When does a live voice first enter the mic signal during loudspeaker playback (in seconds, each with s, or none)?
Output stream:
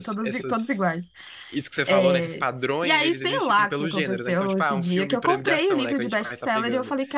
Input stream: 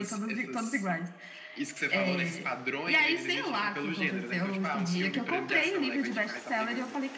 none